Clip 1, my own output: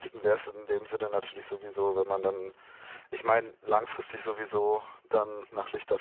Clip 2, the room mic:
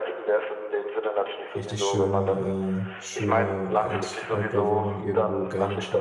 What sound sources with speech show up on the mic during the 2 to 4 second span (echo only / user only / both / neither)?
both